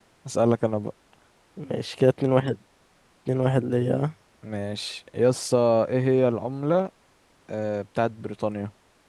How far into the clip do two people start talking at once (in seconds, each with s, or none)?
none